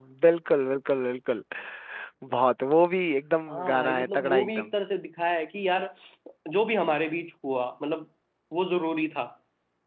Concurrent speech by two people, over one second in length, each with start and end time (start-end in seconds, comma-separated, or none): 3.5-4.7